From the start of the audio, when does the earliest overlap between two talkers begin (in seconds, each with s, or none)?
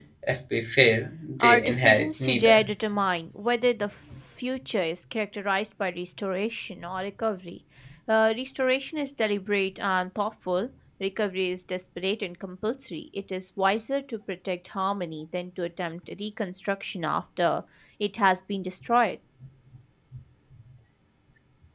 1.4 s